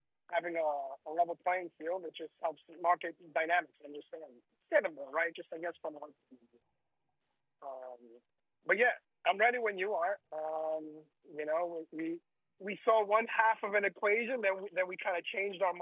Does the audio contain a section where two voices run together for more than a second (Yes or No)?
No